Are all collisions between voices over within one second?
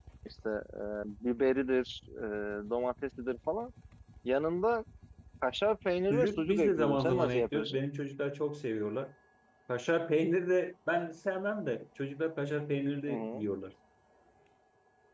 No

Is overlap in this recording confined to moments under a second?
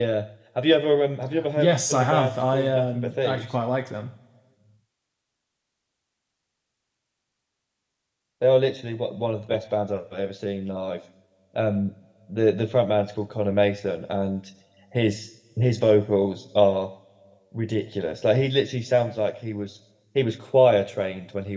No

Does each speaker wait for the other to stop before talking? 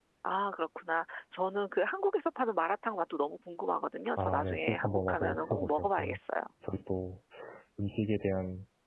No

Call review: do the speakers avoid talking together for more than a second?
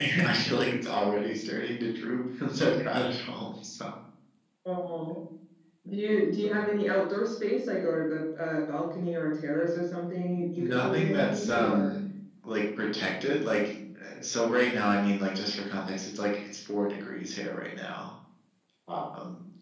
No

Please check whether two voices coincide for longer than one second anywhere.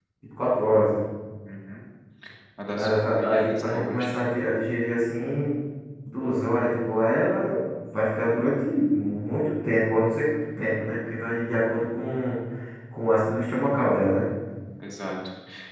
Yes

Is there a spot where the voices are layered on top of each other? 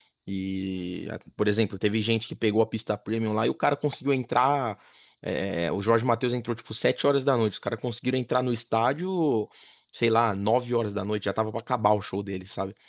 No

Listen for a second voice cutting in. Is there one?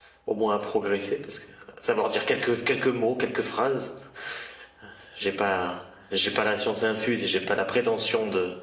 No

